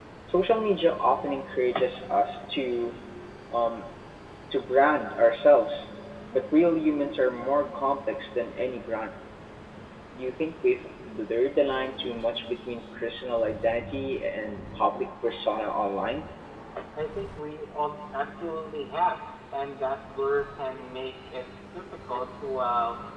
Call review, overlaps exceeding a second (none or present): none